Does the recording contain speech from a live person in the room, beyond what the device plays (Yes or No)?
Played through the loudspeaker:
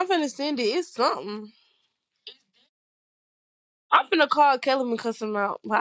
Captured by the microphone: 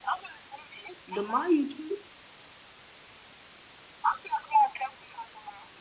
Yes